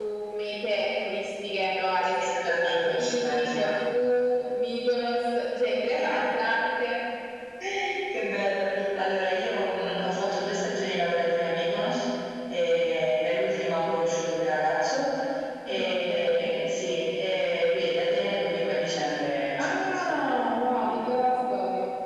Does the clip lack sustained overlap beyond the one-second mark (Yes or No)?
No